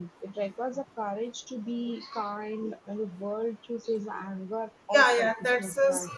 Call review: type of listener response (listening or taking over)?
taking over